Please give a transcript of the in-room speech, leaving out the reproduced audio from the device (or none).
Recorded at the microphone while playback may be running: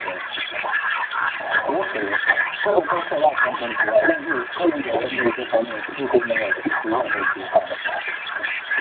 none